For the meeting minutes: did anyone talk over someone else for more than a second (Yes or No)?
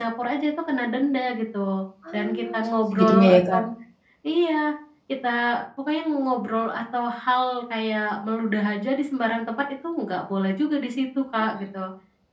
Yes